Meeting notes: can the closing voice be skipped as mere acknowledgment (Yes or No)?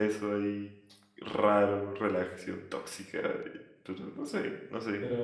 No